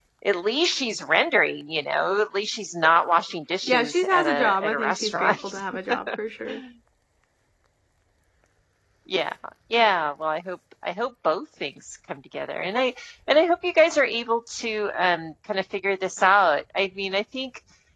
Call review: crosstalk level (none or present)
present